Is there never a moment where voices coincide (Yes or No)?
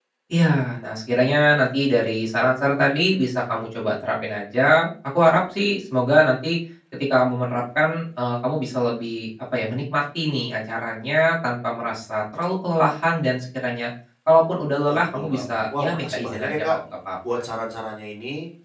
No